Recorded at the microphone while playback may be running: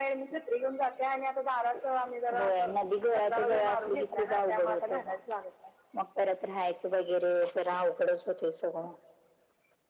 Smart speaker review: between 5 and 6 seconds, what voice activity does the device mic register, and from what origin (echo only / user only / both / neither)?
echo only